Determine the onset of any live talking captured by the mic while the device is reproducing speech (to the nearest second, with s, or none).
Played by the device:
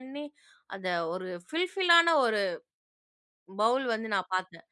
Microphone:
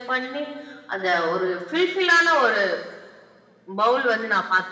none